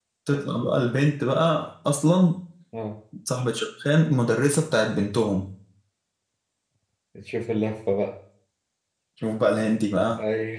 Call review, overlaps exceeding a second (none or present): none